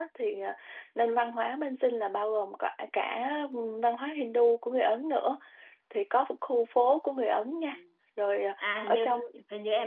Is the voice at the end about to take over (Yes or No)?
Yes